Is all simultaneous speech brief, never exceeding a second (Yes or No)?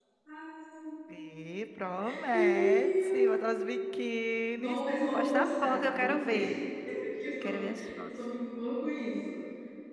No